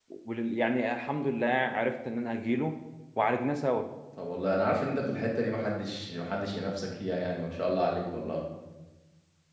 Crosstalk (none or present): none